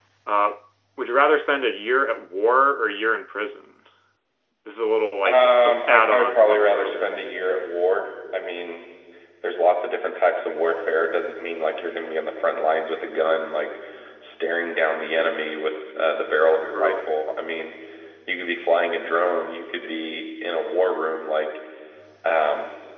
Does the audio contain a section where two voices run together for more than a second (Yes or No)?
Yes